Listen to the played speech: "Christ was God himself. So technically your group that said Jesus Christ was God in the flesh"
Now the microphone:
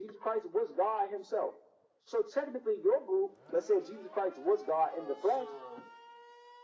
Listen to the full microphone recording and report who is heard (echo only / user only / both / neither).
both